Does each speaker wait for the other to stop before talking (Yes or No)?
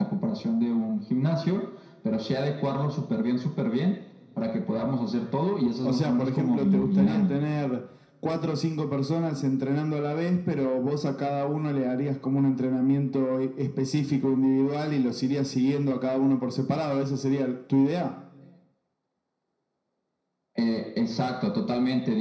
No